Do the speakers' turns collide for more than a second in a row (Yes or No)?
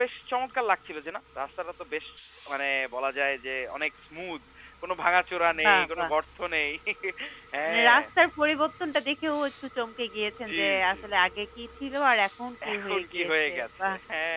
Yes